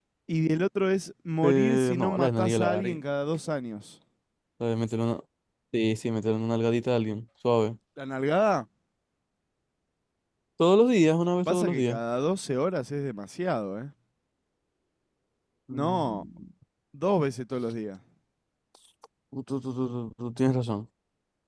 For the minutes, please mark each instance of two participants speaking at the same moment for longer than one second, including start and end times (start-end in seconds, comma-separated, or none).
1.4-3.0